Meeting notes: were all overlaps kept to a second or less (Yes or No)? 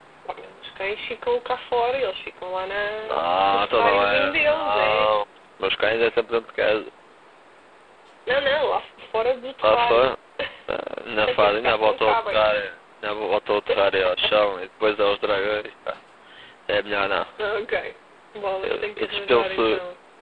No